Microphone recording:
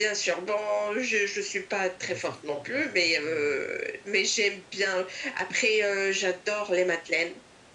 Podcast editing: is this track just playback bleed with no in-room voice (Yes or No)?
No